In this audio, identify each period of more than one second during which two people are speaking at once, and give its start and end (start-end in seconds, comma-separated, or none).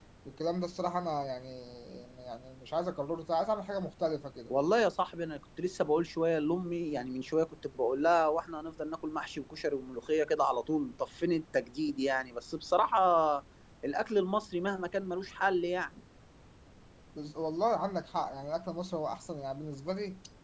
none